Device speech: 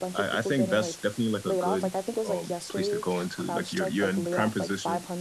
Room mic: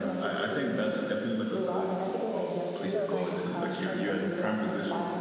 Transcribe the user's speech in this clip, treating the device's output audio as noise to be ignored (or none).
No, not yet.